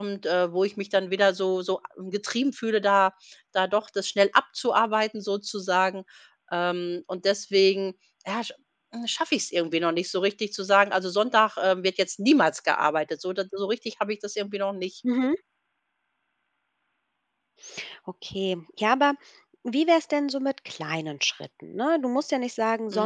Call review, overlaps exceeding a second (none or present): none